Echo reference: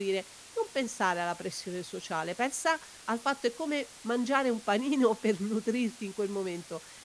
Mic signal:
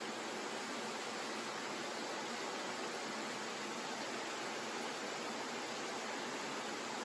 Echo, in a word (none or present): none